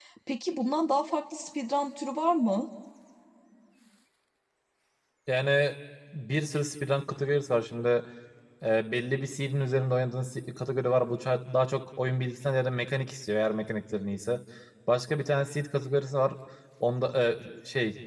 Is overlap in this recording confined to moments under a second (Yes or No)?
Yes